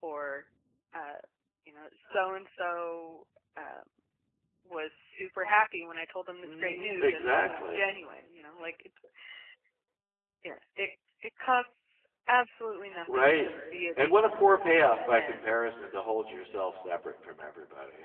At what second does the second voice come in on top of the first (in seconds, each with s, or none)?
6.4 s